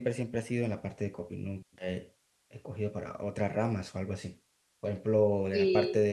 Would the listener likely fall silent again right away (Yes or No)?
Yes